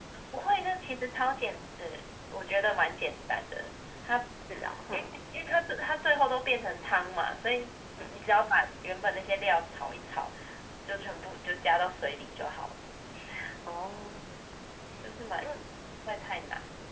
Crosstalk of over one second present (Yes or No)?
No